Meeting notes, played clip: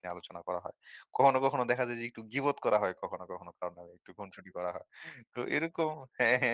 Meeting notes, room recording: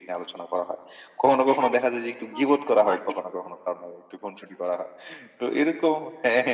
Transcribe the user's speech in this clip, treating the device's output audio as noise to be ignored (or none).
হ্যাঁ, এটা তো এটা তো হয়।